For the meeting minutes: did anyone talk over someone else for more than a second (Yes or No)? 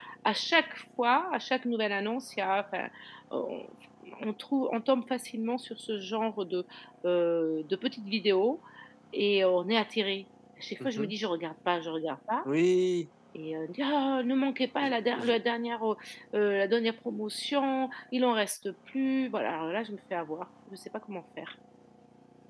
No